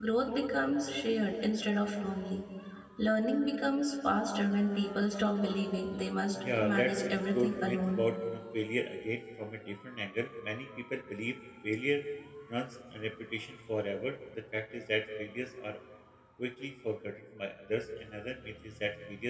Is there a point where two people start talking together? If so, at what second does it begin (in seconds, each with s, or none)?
6.6 s